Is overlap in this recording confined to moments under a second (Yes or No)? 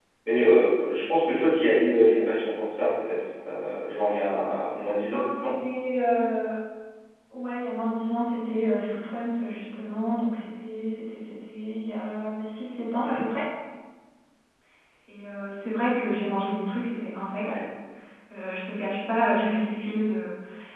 Yes